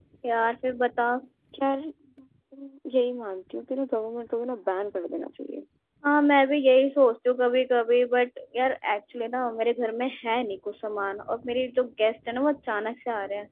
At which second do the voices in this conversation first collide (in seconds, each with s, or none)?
none